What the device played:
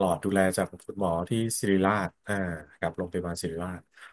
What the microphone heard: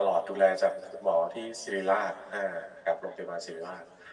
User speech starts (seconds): none

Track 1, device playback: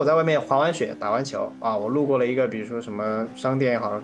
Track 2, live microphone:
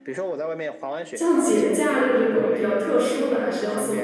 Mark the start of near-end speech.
1.1 s

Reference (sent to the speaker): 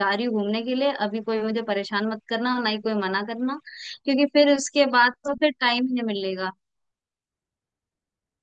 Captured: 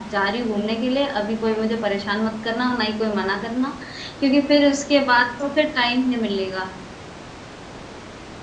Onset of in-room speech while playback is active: none

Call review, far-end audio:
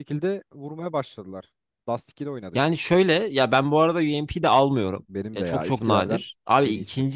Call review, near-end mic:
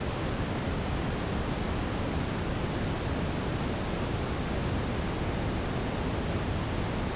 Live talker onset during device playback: none

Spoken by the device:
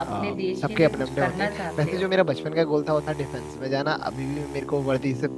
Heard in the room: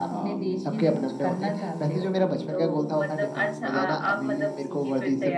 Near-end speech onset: 2.5 s

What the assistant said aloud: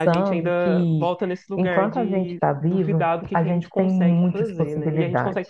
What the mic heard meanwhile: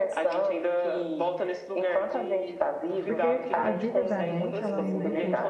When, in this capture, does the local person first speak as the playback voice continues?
3.0 s

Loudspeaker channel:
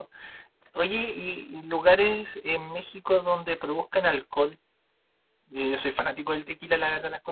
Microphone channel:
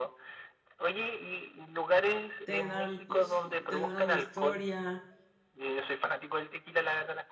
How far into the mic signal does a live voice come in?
2.4 s

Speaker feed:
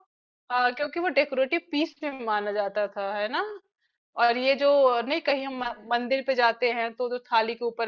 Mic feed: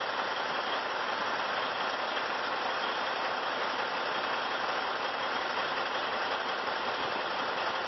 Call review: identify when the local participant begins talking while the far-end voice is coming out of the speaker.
none

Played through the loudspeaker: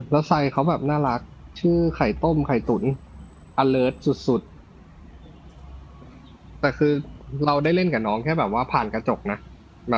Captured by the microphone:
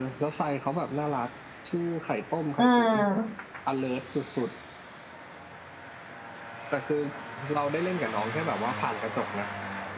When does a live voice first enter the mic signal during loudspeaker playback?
2.6 s

